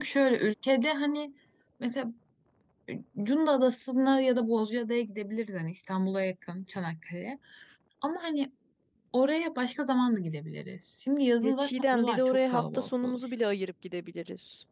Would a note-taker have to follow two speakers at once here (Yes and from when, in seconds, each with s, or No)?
Yes, from 11.4 s